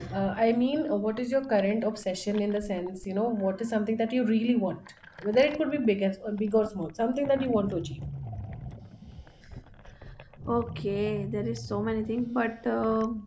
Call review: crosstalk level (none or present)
none